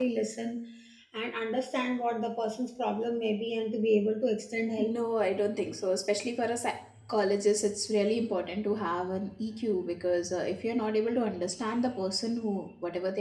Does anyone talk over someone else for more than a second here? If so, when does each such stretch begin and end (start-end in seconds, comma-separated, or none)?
none